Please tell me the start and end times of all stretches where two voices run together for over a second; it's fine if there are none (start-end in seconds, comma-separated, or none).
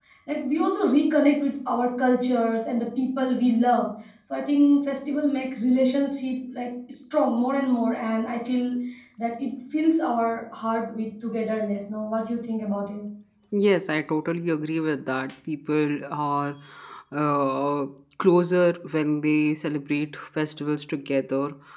none